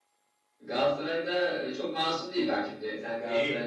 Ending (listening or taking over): taking over